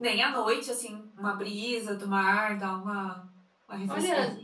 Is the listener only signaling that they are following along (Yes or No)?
No